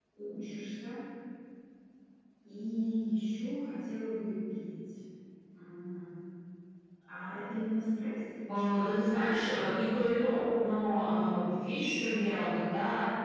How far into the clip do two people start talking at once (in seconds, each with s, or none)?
8.5 s